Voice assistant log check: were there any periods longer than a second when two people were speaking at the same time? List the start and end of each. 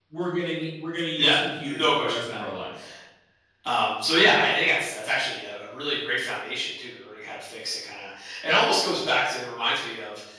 1.2-2.4

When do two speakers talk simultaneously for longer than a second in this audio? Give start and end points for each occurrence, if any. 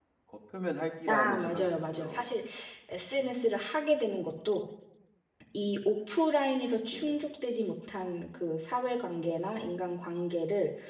1.1-2.3

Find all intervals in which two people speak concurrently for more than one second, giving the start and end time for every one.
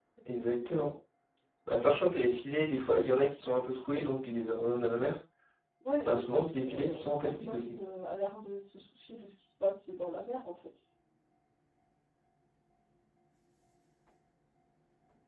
6.0-7.8

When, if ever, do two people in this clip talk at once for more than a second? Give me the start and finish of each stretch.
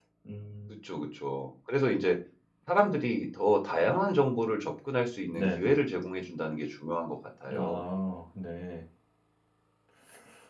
none

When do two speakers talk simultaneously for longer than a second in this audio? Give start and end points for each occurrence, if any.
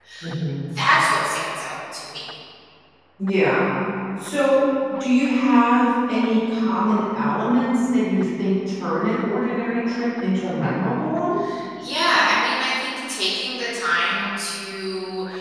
none

